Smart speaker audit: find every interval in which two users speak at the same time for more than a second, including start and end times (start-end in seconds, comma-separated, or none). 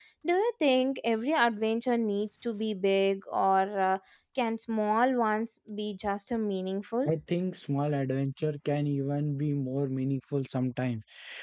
none